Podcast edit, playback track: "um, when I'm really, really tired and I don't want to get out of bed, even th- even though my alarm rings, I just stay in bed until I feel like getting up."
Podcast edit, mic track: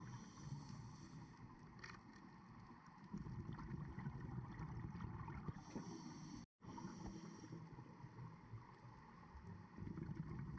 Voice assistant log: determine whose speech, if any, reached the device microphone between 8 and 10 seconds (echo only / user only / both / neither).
neither